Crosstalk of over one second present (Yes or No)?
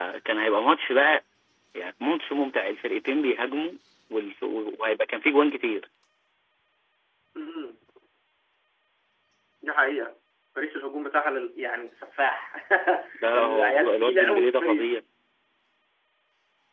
Yes